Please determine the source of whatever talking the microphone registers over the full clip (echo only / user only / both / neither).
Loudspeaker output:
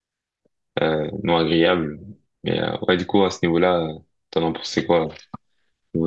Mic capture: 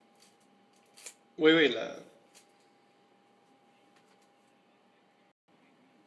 user only